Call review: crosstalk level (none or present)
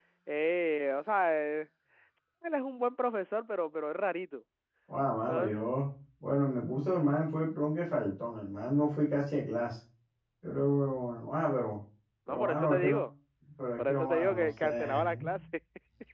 present